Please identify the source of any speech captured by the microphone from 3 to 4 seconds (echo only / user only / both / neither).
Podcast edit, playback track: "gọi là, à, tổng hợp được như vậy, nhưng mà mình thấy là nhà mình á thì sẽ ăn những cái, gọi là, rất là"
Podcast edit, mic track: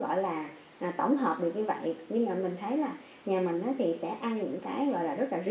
echo only